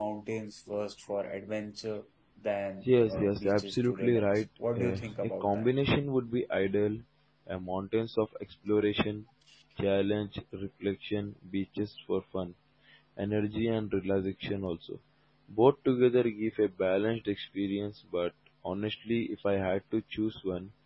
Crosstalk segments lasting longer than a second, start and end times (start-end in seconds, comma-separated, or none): 2.9-5.7